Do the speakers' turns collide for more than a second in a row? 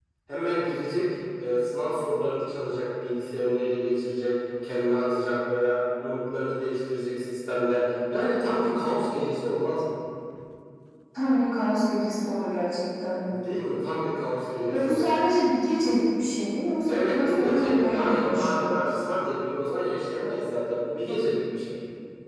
Yes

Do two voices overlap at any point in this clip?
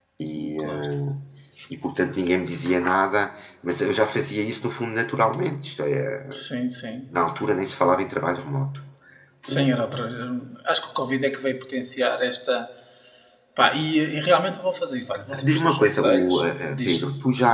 Yes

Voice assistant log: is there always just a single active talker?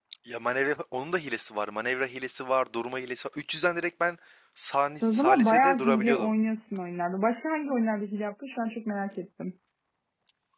No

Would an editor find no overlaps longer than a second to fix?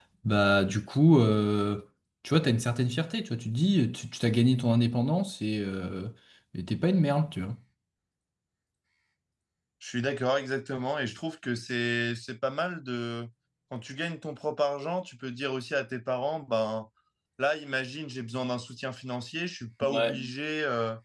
Yes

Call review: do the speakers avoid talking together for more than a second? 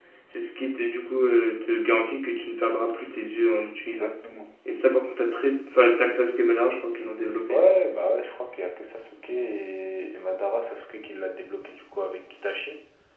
Yes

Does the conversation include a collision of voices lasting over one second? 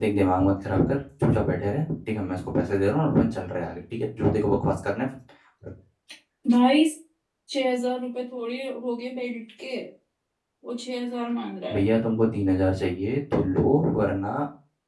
No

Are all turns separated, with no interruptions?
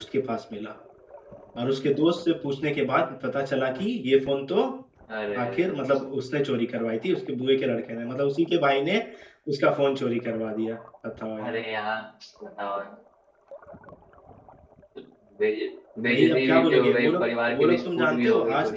No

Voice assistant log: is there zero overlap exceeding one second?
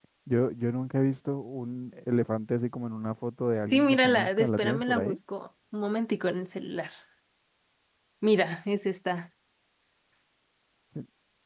No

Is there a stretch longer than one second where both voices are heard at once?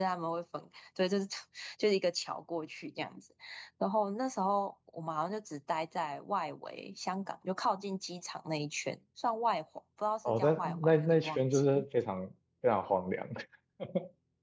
Yes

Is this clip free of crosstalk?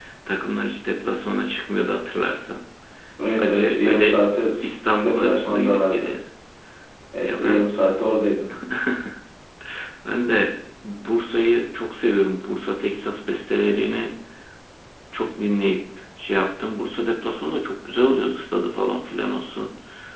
No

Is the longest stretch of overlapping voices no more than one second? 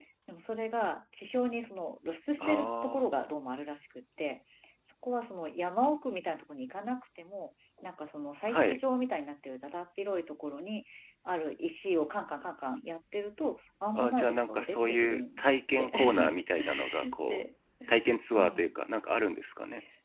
No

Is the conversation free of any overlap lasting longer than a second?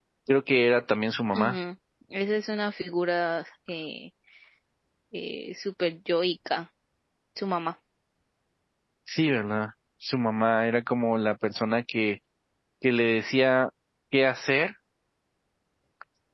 Yes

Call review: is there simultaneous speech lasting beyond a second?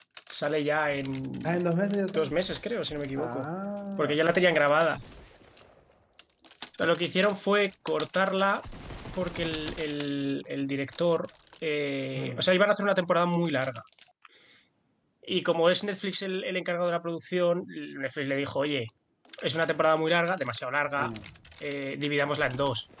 No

